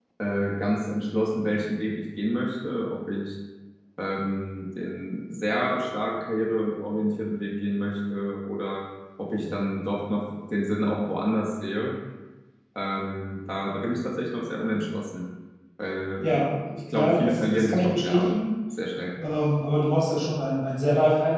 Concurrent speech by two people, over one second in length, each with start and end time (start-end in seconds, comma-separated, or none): 16.9-18.4